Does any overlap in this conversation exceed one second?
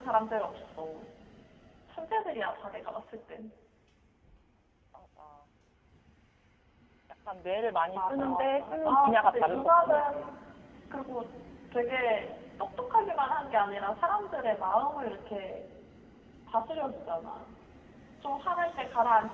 Yes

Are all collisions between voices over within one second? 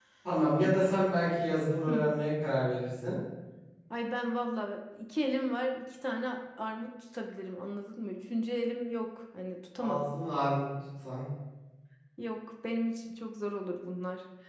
Yes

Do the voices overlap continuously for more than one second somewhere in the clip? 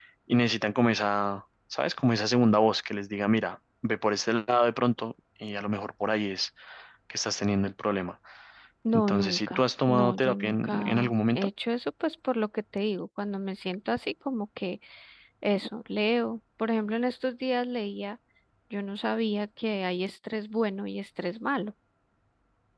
Yes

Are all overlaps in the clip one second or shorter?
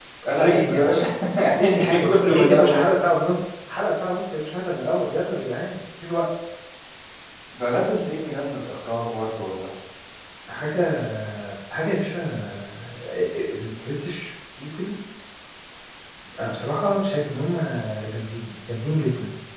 No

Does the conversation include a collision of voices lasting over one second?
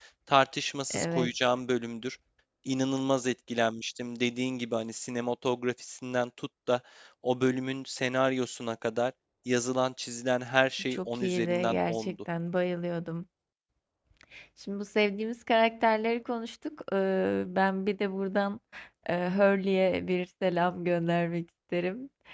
Yes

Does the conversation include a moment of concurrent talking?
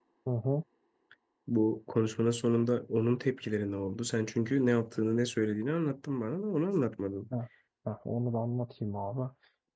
No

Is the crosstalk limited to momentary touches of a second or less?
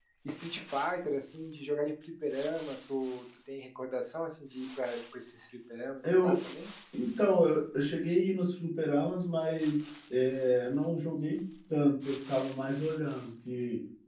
Yes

